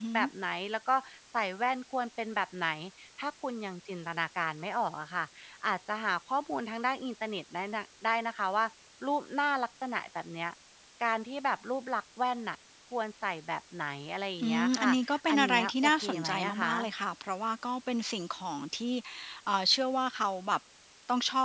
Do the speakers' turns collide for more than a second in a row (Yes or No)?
Yes